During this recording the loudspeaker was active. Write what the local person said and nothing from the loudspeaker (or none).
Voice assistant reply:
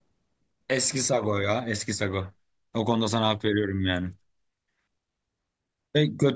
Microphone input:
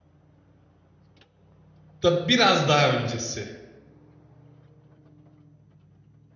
da biraz daha öncesi.